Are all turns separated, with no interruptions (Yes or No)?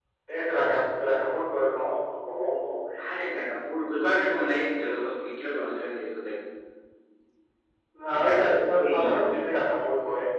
No